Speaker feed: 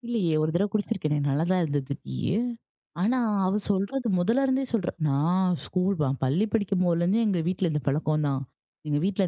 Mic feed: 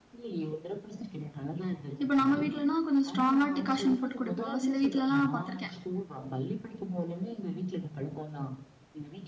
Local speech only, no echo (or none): இப்ப நம்ம வீட்லனா கொஞ்சம் ஸ்ட்ராங்கா டிகாஷன் போட்டு குடிப்போம்ல. சில வீட்லலாம் நான் பார்த்துருக்கேன்.